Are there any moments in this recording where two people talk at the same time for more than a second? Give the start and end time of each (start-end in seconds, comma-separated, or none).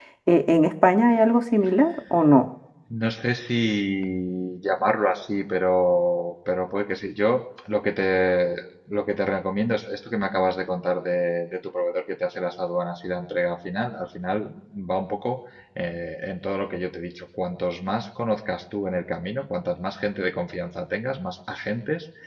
none